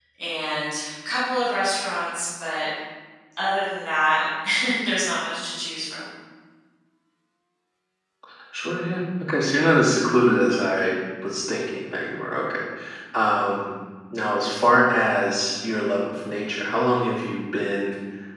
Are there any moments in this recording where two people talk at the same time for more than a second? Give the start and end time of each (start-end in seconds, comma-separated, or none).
none